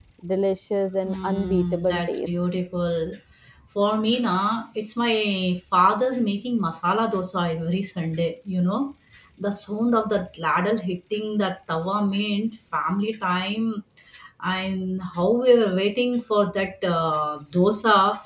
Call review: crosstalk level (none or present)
present